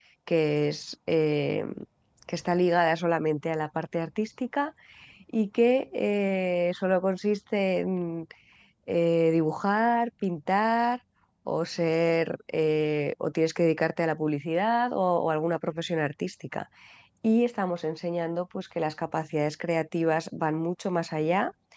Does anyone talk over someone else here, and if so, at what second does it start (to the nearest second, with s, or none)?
none